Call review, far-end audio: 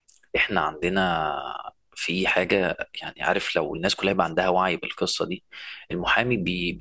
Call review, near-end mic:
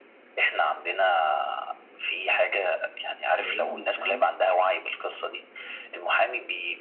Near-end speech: present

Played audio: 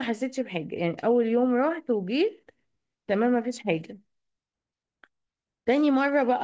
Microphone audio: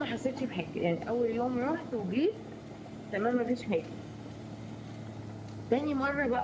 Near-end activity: none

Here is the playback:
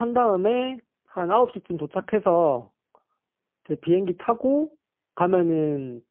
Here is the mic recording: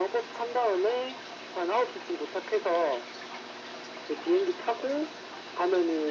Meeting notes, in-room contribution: none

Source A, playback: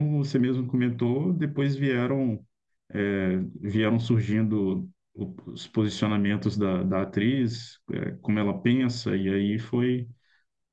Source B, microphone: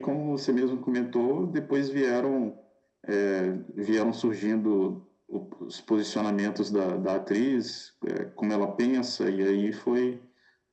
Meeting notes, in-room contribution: none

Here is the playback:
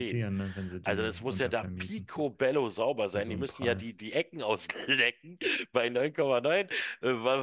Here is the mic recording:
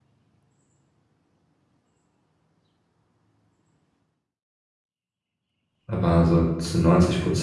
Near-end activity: present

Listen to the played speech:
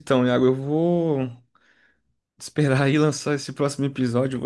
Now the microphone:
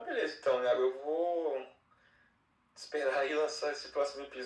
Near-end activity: none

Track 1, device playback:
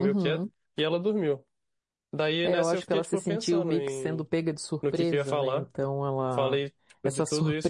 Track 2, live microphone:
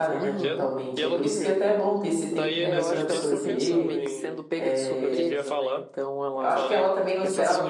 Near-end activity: present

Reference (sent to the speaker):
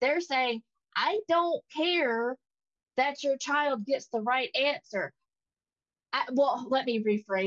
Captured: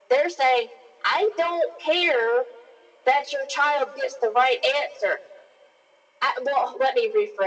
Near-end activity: none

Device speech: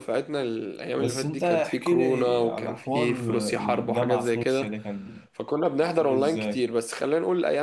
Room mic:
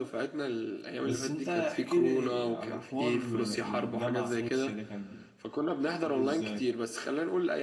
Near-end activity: none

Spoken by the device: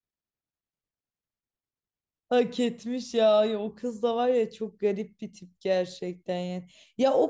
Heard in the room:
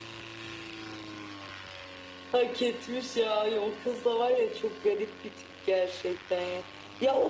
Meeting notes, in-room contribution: none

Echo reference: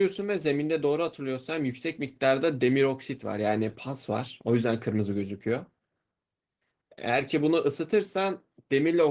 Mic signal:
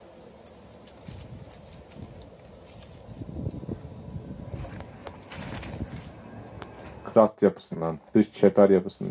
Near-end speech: present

